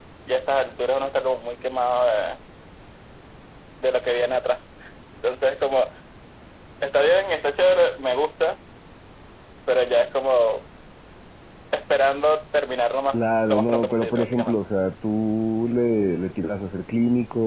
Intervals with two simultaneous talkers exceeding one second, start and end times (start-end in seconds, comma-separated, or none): 13.1-14.6